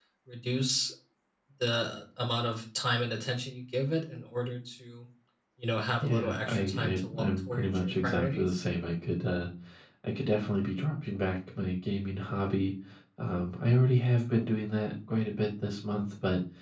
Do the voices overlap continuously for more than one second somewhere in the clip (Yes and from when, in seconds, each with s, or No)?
Yes, from 6.0 s